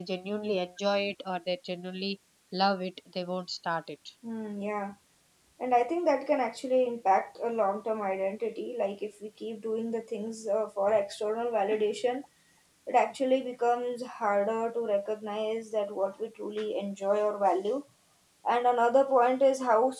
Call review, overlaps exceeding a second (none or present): none